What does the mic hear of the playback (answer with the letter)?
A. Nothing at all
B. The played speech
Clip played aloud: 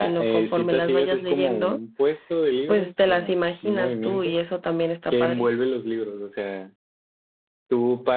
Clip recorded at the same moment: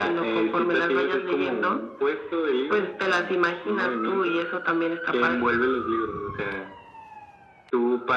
B